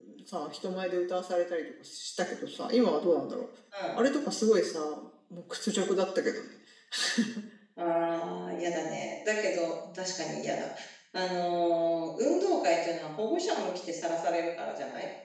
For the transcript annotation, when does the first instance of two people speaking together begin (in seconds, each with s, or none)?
none